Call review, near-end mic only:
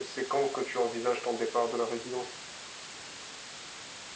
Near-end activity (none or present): none